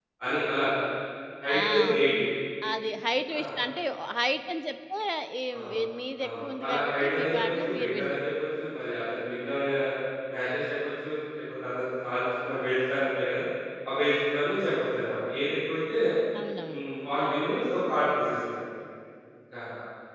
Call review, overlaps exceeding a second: present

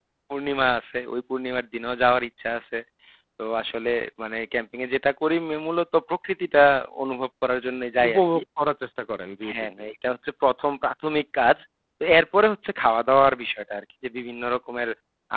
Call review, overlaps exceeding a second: none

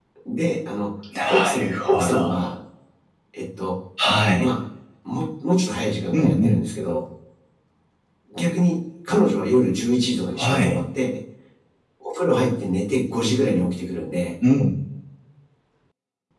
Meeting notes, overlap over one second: present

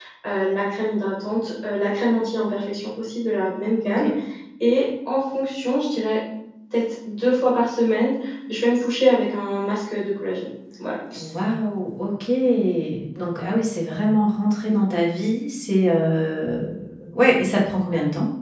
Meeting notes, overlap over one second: none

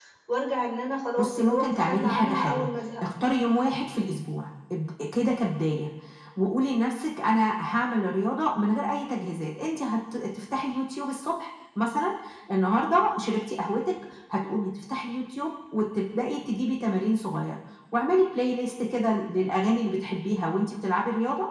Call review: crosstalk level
present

